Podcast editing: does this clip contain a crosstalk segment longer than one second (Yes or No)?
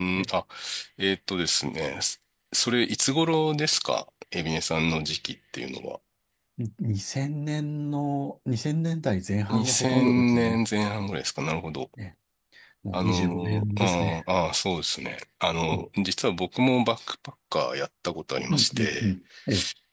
Yes